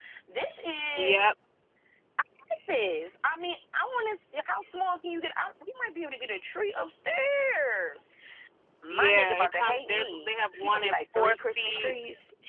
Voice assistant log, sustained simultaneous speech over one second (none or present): present